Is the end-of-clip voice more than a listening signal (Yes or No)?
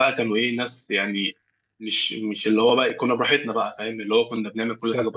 No